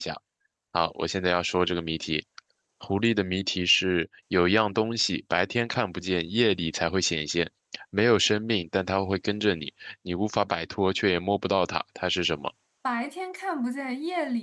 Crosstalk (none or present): none